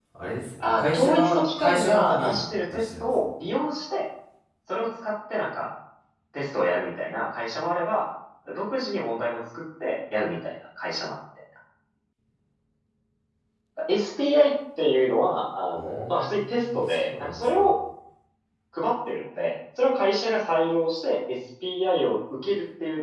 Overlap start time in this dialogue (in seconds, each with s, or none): 0.6 s